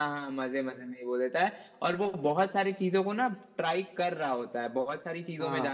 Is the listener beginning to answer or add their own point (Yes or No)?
No